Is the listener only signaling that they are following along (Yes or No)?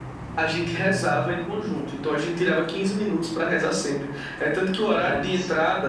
Yes